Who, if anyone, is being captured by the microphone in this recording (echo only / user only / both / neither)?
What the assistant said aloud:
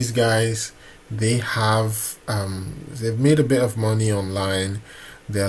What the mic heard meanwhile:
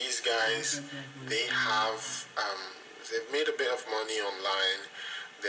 both